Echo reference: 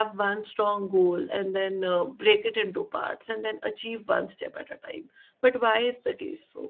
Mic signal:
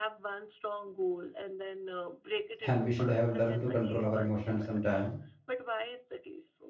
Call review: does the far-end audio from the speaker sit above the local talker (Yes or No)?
No